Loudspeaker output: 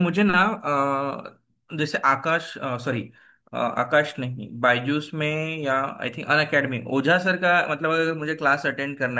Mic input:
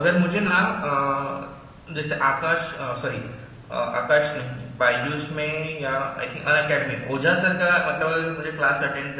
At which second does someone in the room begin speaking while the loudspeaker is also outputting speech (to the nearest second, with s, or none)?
none